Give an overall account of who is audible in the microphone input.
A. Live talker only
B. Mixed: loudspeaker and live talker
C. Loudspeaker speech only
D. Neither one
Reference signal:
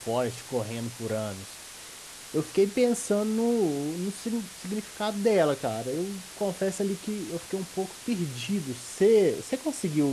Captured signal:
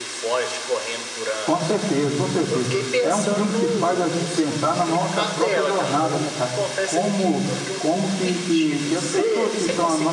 B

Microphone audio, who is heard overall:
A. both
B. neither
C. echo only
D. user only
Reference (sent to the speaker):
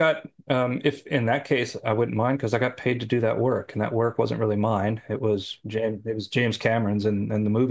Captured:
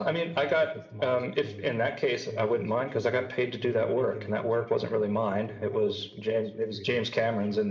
A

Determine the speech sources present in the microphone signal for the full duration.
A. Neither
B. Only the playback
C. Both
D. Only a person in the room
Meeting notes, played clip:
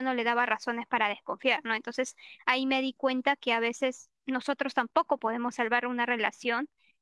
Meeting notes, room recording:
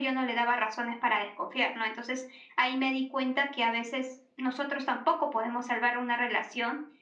B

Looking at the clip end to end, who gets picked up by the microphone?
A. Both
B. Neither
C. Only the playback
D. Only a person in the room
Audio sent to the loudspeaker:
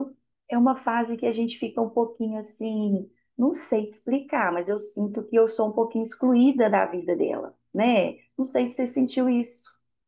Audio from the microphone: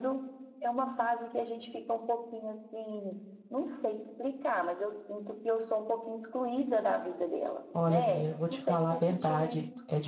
A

